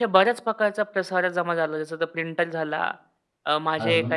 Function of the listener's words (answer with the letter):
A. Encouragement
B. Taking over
A